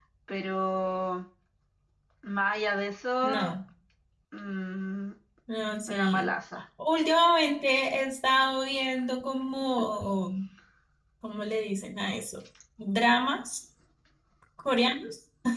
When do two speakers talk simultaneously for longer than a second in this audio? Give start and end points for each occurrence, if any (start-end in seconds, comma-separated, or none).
none